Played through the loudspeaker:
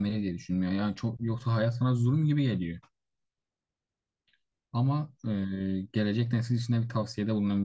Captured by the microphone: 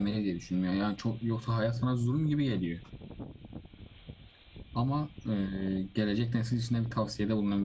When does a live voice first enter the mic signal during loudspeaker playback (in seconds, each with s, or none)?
none